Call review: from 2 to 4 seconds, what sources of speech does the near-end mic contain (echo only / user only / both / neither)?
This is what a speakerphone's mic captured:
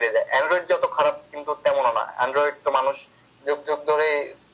echo only